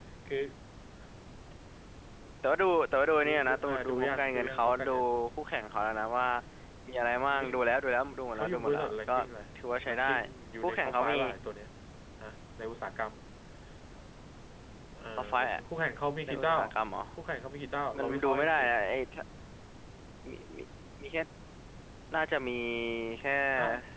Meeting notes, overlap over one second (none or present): present